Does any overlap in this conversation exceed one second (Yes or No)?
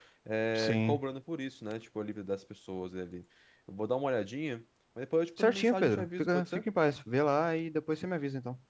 Yes